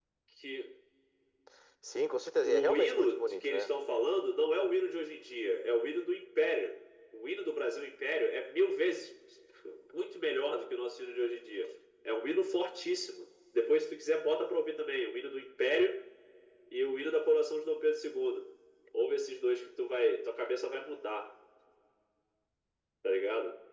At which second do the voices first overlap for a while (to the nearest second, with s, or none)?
2 s